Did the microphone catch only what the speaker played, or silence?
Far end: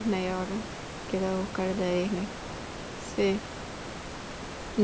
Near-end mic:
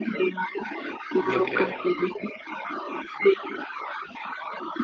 No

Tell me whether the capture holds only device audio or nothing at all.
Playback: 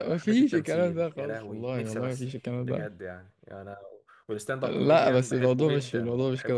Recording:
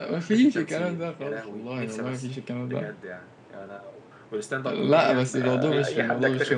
No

